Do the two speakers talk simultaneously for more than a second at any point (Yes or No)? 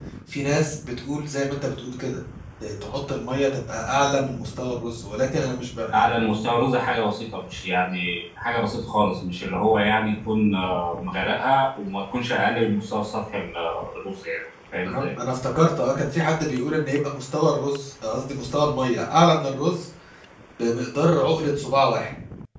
No